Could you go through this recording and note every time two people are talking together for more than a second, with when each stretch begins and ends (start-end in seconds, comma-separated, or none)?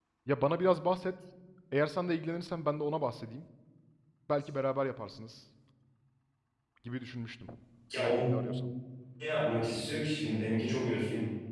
none